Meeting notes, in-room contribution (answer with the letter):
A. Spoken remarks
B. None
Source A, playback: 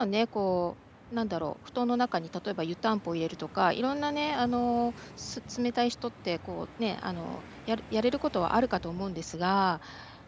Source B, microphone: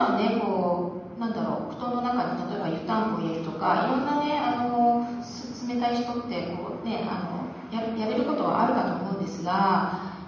A